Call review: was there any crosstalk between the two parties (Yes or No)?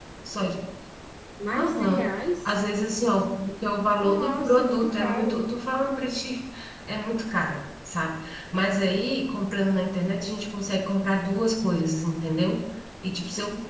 Yes